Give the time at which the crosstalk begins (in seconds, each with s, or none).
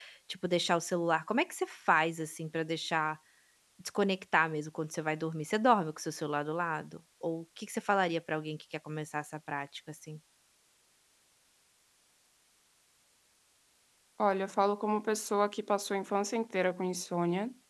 none